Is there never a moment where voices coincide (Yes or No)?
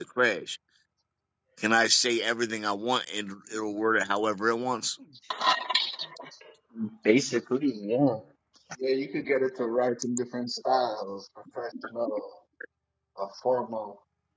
Yes